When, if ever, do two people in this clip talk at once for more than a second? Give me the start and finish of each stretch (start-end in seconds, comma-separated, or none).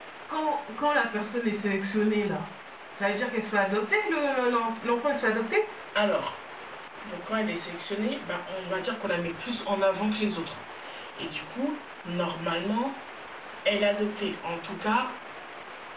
none